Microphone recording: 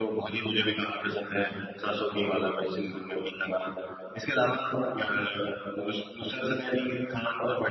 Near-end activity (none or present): none